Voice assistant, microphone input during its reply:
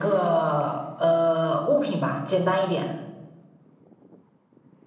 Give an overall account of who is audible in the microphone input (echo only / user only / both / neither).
echo only